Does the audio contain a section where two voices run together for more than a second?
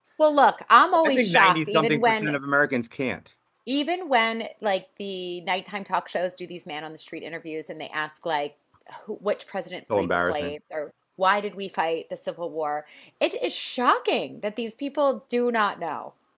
Yes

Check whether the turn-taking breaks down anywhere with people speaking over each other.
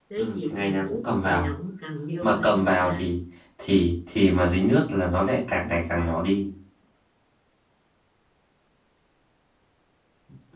Yes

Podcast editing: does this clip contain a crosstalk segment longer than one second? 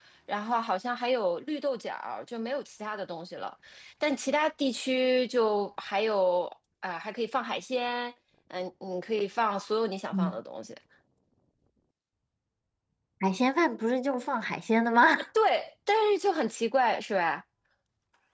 No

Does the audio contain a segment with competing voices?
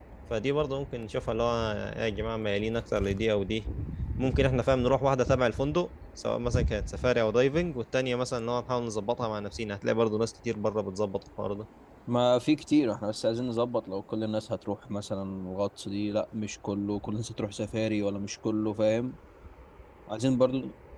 No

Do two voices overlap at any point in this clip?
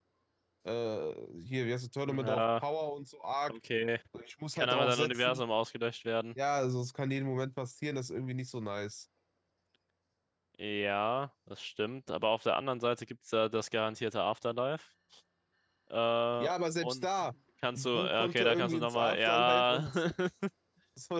Yes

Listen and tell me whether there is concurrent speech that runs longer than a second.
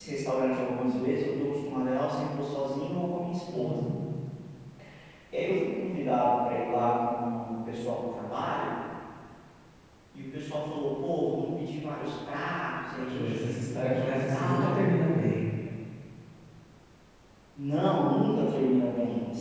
Yes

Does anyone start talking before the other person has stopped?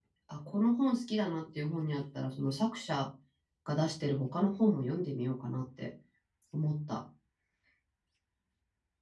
No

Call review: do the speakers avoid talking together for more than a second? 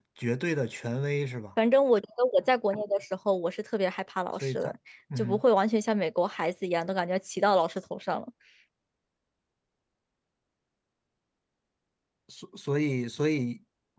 Yes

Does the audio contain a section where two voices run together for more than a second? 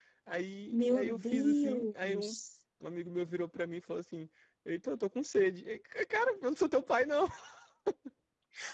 Yes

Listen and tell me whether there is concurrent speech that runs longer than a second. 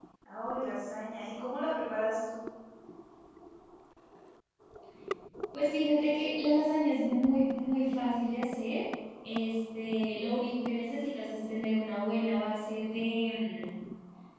No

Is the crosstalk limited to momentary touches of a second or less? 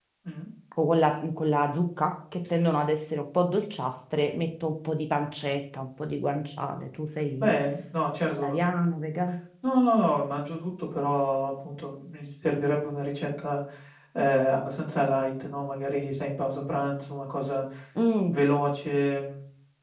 Yes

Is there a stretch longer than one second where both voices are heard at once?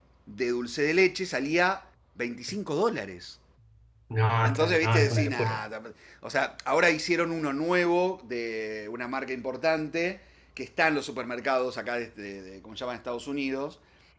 Yes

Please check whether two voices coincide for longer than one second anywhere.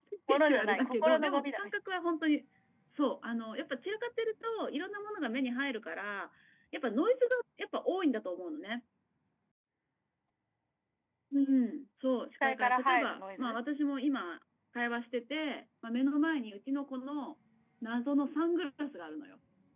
Yes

